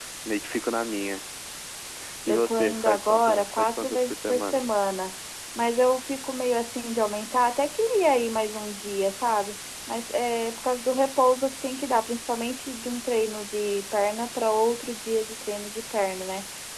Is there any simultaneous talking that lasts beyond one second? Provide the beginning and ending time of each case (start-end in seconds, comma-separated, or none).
2.3-4.7